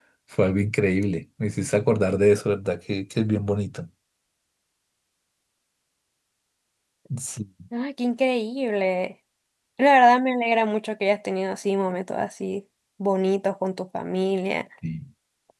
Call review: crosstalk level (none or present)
none